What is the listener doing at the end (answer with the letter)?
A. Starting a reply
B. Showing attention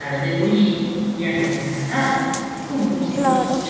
B